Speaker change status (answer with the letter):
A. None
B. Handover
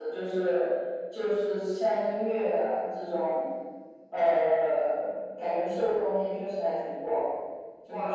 B